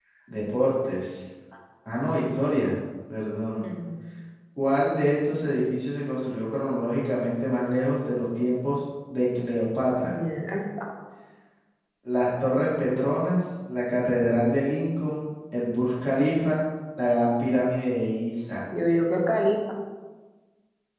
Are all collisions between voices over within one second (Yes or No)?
Yes